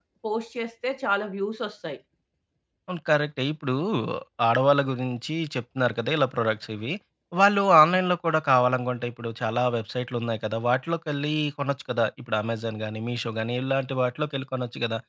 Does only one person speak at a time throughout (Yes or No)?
Yes